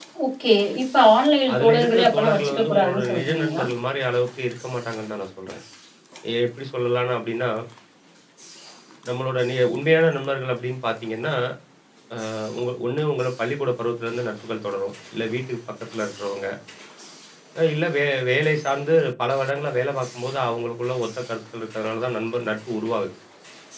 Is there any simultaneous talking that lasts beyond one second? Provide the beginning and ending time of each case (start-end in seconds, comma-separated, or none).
1.6-3.6